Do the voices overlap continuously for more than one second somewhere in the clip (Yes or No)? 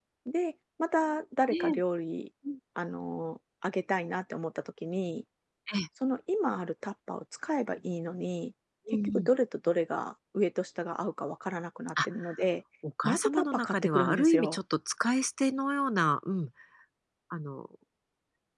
Yes